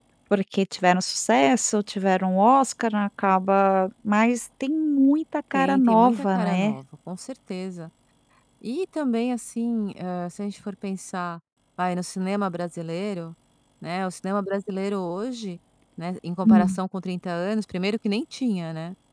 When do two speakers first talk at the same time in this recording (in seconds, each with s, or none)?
5.5 s